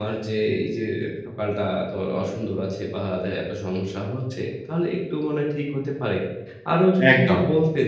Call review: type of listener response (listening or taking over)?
listening